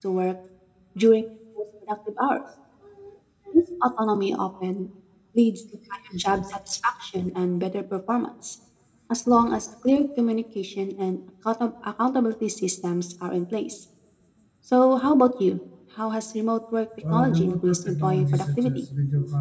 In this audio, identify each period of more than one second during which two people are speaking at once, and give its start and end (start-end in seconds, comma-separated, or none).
17.1-18.8